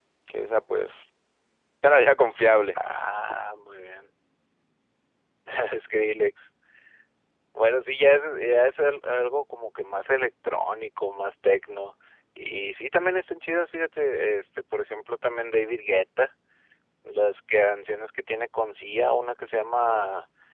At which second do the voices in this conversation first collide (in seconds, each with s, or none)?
none